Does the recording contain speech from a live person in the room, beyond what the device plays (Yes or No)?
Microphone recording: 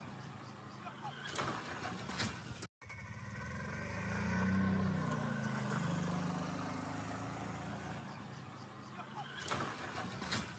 No